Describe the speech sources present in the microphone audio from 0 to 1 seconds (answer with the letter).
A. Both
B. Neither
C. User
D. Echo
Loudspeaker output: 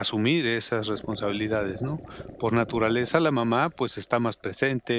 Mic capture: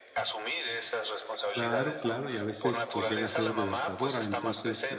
D